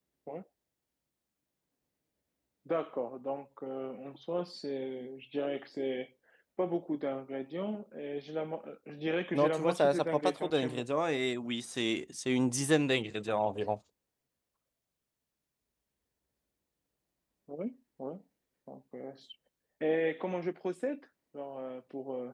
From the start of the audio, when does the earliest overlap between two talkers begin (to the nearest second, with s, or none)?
9 s